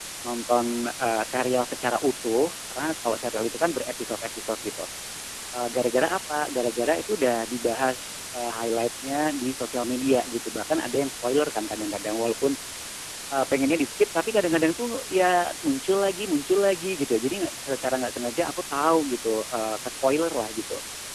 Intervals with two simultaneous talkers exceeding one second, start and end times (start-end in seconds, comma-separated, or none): none